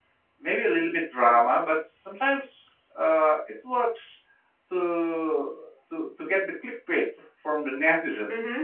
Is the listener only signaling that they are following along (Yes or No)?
No